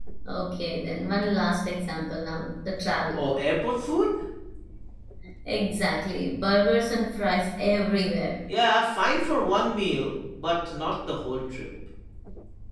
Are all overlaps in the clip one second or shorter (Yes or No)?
Yes